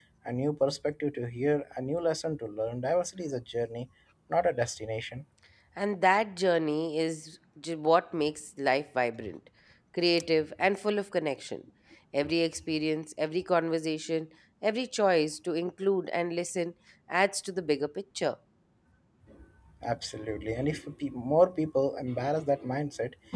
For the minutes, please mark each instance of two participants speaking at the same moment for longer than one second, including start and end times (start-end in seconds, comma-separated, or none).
none